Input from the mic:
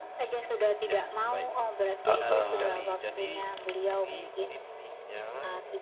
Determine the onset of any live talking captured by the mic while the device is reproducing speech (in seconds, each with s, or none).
2.0 s